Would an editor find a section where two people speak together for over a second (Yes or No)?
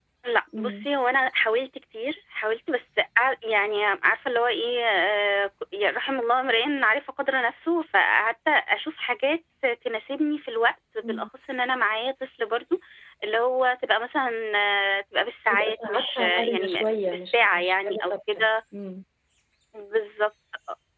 Yes